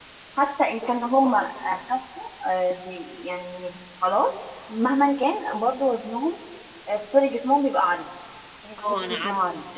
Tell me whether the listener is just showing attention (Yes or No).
No